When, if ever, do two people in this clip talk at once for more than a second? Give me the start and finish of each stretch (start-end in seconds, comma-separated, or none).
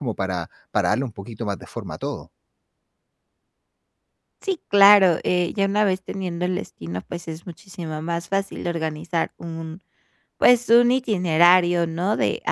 none